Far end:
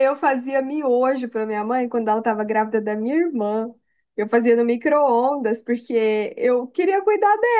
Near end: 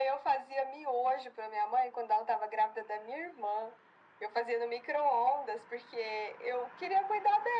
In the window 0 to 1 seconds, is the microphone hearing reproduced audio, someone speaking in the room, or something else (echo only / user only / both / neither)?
echo only